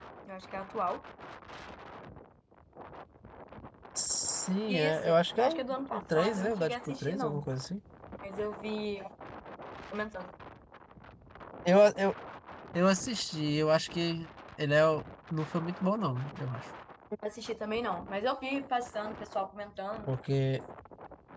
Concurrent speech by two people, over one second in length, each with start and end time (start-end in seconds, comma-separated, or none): 4.7-7.4